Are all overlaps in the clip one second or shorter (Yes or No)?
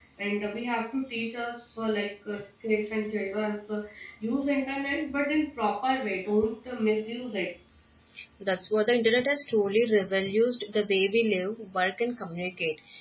Yes